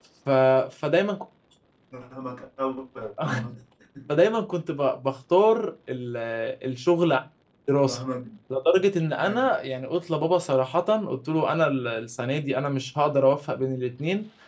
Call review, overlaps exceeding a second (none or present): none